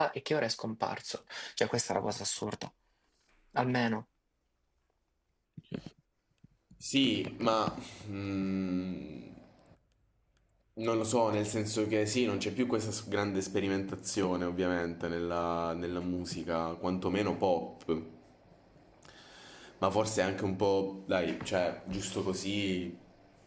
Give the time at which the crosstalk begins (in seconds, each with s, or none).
none